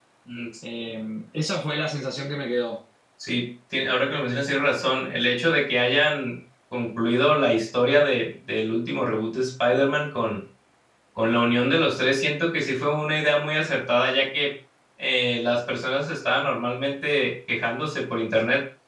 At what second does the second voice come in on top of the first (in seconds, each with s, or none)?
none